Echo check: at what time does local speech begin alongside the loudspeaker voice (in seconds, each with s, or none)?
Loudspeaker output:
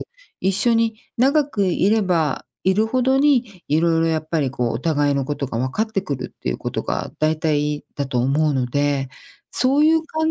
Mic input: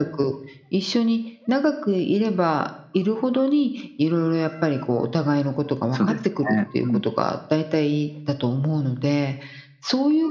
5.9 s